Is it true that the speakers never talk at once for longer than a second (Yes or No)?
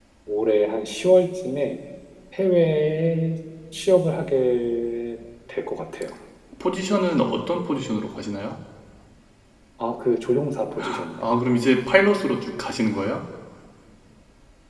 Yes